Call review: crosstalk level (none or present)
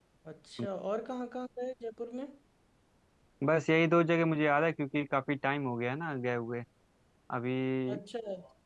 none